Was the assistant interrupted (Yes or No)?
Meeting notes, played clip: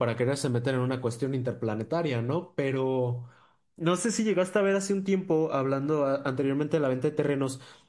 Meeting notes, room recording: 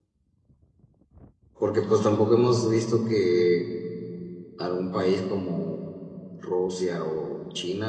Yes